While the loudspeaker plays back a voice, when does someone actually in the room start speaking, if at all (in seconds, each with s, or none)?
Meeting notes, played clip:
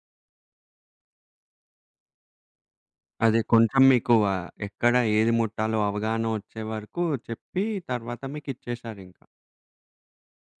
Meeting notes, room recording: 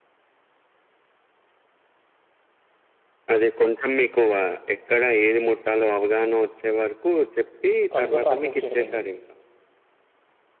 7.9 s